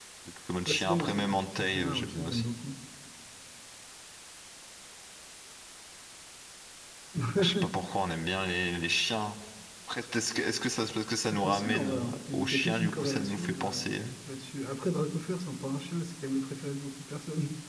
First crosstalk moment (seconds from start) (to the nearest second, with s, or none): 1 s